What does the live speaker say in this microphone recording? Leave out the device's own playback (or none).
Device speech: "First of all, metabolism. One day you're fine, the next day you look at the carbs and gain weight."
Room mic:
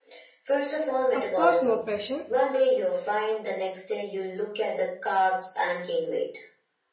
of course no pressure